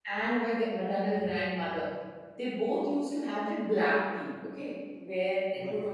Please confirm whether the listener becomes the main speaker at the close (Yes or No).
No